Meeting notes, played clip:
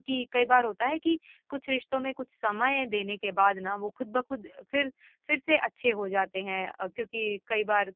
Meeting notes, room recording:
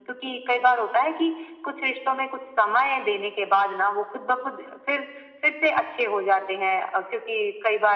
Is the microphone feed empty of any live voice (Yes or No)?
Yes